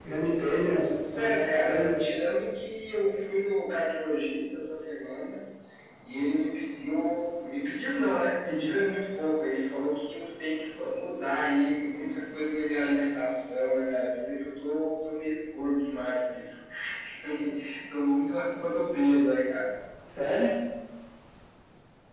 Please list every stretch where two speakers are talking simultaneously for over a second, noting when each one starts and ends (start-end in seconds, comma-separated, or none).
0.8-2.1